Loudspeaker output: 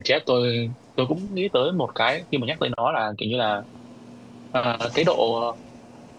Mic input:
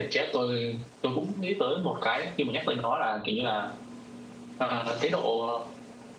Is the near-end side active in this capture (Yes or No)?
No